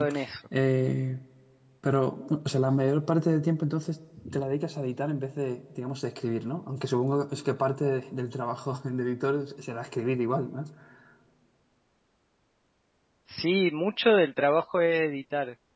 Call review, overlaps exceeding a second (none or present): none